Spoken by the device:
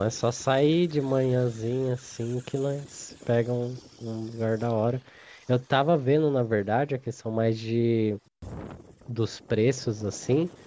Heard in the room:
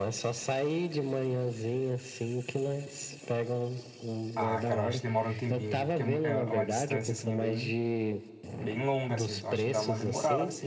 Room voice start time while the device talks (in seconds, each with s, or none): 4.3 s